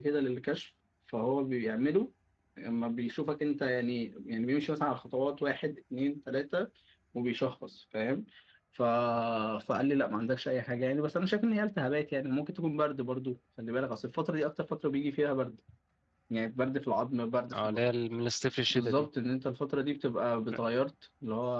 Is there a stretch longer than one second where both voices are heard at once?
No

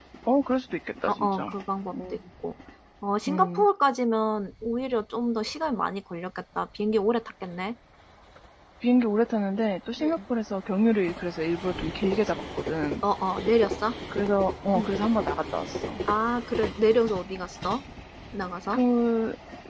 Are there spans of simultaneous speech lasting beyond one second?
No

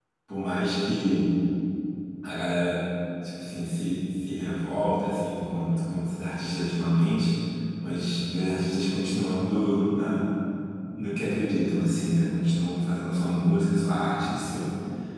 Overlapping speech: No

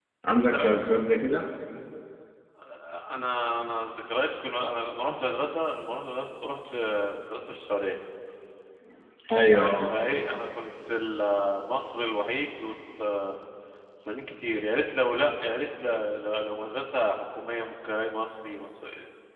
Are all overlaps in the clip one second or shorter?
Yes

